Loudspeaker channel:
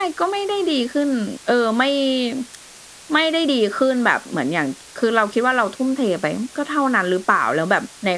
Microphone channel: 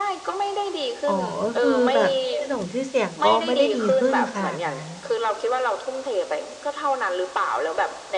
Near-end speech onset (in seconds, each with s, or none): 1.1 s